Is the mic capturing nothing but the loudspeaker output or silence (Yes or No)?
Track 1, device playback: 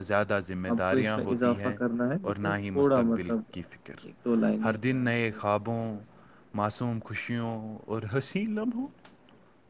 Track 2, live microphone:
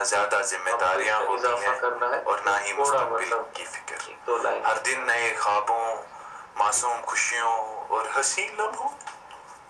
Yes